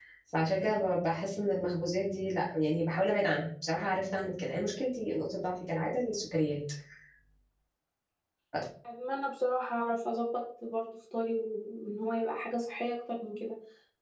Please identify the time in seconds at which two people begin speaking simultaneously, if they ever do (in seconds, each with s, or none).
none